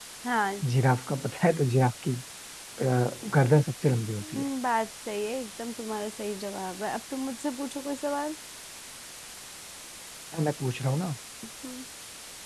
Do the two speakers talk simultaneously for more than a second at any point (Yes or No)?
No